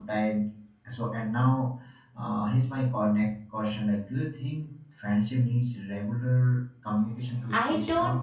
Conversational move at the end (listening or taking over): taking over